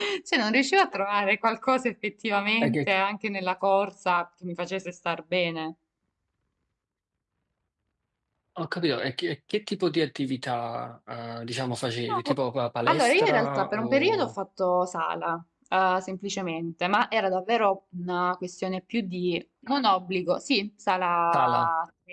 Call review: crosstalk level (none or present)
present